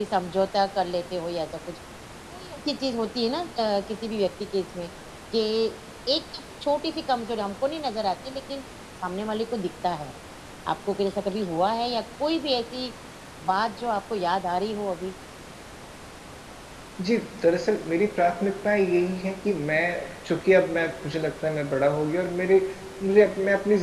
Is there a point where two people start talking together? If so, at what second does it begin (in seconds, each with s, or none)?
none